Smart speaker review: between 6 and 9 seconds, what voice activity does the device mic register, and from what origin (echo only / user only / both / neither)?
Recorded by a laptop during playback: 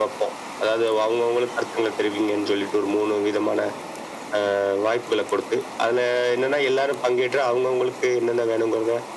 echo only